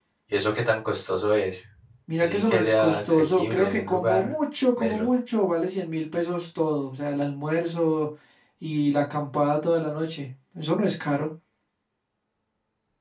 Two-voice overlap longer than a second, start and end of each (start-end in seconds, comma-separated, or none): 2.2-4.3